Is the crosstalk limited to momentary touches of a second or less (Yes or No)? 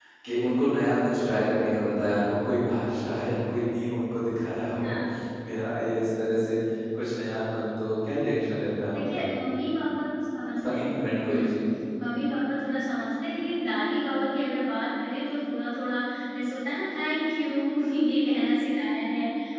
Yes